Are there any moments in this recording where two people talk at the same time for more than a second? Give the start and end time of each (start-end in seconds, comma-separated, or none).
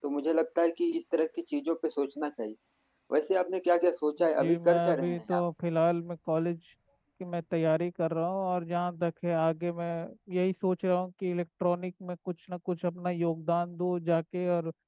4.2-5.4